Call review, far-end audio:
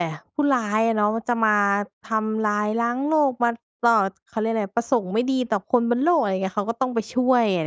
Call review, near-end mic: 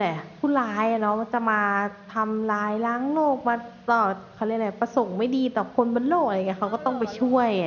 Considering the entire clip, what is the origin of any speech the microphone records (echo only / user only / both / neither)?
both